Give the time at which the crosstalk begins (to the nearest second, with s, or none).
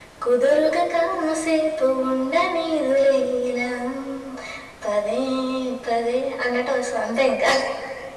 none